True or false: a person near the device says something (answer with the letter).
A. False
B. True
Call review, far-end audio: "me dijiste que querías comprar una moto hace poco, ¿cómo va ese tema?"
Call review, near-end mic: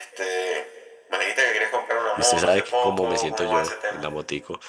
B